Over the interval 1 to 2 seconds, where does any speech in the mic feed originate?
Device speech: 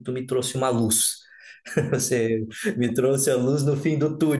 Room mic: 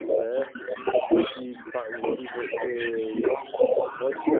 both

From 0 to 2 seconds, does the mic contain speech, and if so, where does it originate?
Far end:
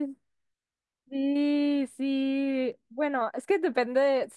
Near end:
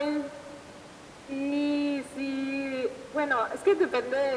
echo only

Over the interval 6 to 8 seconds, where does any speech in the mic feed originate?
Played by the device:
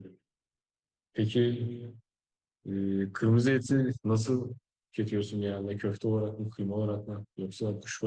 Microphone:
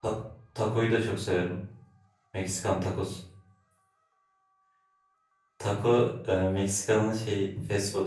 user only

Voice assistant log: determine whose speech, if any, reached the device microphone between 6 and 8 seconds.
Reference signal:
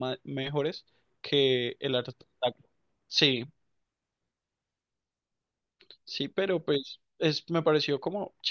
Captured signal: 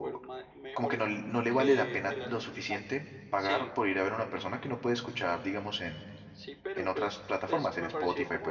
both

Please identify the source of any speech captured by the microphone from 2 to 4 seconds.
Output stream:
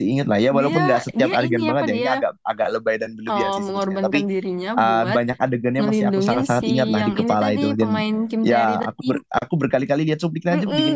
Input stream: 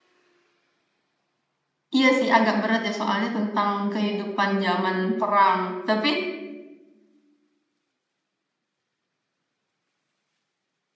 user only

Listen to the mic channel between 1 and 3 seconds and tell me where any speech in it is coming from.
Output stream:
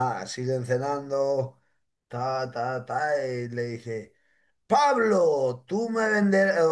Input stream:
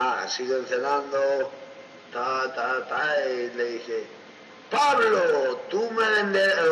echo only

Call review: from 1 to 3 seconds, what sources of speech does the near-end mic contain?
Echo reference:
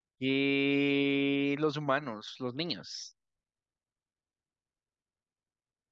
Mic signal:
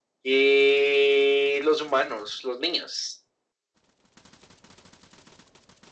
echo only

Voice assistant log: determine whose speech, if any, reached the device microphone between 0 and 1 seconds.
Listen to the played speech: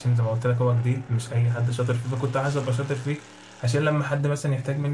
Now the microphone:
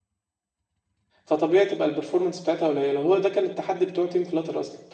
neither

